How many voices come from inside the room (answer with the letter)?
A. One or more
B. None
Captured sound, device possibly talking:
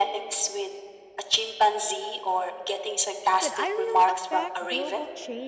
A